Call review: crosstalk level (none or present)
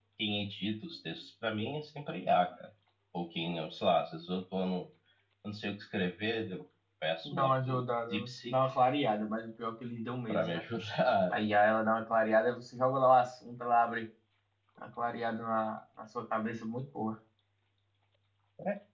present